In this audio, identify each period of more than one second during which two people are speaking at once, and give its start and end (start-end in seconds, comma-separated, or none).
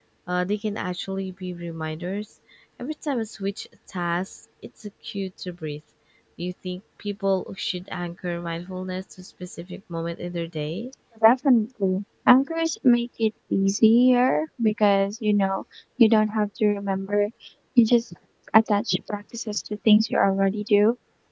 none